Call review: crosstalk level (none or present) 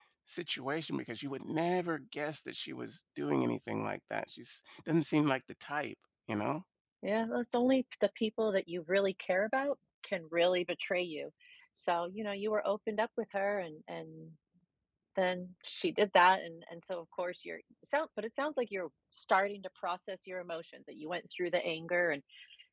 none